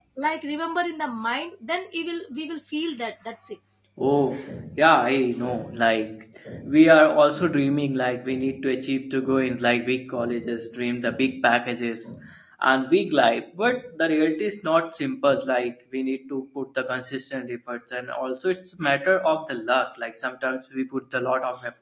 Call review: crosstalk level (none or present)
none